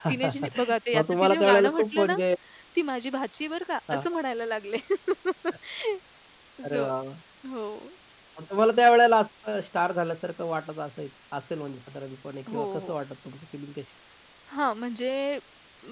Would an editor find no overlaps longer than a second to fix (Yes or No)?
No